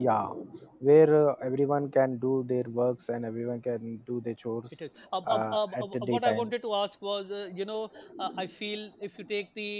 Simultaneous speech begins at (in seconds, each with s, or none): 5.3 s